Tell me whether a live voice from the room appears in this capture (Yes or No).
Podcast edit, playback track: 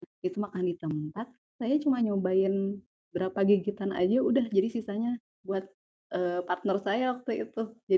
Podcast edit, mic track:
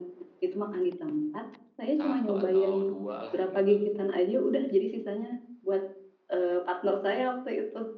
Yes